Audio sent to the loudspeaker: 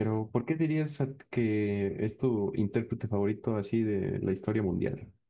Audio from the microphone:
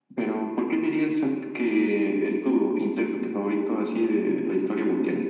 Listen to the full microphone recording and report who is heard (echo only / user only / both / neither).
echo only